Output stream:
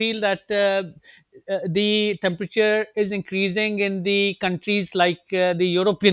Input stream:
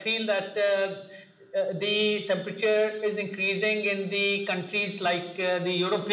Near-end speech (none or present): none